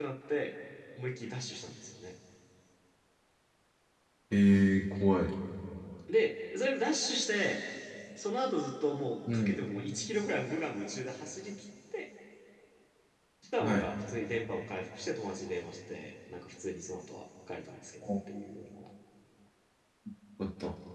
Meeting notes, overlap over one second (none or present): none